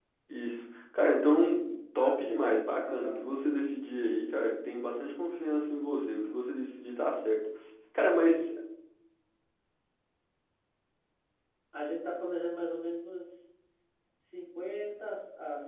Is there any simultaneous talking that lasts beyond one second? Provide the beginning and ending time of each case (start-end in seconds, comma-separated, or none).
2.0-3.6